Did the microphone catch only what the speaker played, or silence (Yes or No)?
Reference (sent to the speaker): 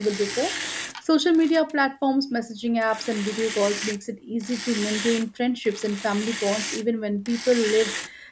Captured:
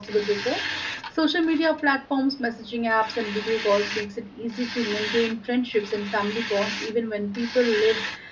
Yes